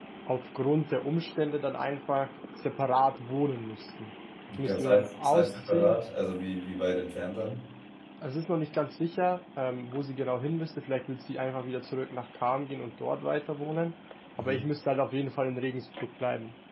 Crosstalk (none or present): present